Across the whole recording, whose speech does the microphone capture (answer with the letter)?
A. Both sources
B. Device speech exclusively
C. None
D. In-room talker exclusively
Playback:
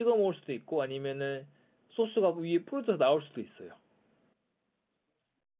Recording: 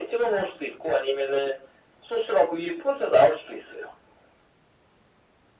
B